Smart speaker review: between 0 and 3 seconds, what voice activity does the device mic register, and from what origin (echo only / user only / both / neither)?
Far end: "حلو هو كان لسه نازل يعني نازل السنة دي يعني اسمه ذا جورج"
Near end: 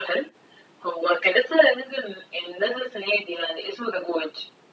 echo only